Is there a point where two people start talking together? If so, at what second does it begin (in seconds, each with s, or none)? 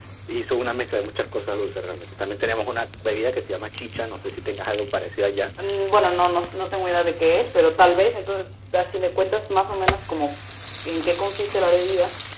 none